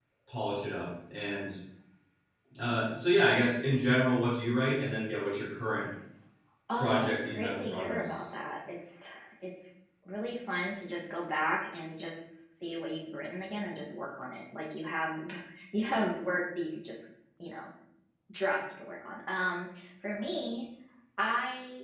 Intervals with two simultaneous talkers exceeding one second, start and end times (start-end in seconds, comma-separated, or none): 6.8-8.3